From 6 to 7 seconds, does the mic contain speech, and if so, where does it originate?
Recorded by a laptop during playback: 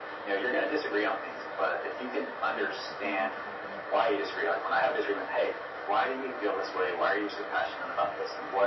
echo only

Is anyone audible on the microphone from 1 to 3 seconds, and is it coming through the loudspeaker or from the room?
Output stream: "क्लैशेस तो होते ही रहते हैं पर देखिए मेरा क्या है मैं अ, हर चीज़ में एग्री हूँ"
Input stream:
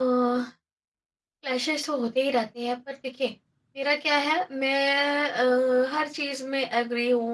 echo only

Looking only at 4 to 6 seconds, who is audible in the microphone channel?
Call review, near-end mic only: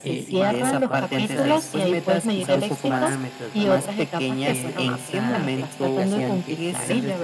both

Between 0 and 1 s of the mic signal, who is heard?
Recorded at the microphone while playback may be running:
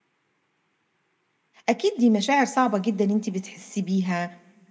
neither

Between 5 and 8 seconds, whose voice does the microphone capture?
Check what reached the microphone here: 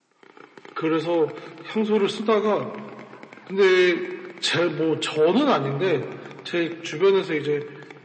echo only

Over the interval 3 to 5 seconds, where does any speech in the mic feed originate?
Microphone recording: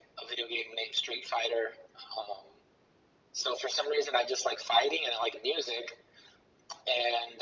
echo only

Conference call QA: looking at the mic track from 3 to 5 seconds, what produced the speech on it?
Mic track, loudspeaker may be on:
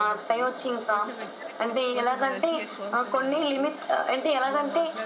both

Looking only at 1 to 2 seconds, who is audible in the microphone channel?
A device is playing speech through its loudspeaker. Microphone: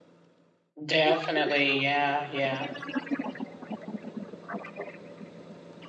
both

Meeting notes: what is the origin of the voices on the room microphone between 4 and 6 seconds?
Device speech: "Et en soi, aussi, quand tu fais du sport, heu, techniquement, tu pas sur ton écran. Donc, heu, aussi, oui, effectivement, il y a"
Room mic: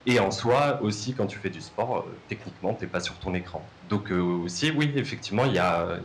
echo only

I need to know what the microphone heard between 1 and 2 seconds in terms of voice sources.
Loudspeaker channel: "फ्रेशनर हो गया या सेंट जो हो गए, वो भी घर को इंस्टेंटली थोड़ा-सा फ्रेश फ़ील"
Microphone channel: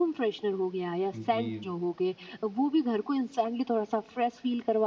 both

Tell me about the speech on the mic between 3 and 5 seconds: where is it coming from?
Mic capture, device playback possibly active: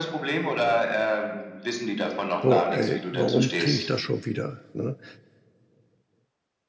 both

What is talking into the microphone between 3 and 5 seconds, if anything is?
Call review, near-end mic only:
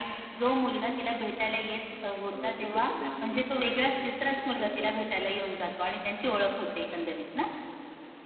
both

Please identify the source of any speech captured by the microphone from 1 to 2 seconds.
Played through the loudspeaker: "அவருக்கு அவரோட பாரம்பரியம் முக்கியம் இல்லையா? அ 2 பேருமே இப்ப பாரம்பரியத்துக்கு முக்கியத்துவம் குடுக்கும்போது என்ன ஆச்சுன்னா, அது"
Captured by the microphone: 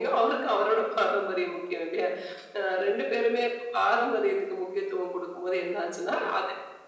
echo only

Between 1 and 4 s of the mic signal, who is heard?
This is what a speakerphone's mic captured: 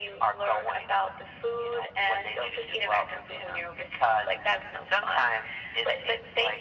echo only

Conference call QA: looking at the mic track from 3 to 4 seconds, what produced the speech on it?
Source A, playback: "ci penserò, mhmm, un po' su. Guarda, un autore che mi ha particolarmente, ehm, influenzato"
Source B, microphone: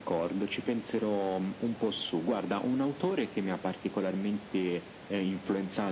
echo only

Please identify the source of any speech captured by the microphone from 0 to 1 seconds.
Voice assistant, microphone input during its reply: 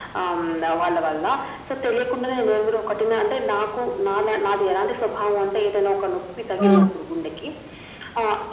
echo only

